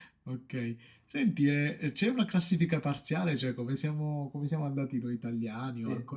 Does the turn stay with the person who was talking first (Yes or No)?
No